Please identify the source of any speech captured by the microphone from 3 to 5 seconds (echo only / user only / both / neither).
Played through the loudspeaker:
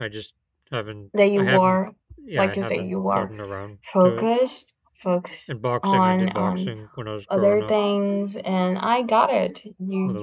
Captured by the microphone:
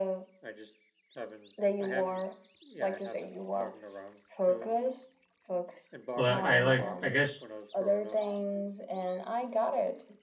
echo only